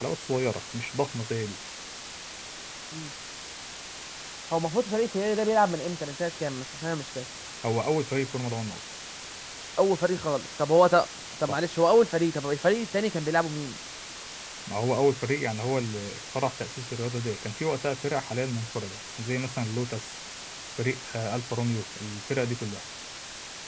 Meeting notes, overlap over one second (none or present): none